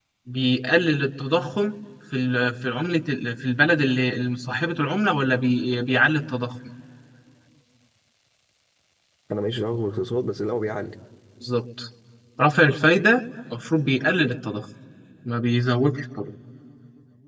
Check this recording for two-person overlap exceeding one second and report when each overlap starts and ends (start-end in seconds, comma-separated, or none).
none